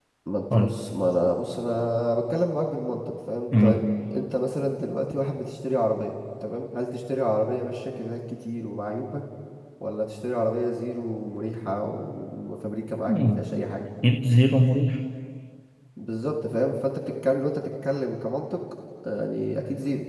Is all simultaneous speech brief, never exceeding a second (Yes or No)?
Yes